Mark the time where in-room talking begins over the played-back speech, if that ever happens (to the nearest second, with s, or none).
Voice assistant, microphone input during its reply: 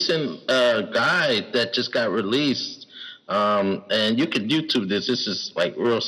none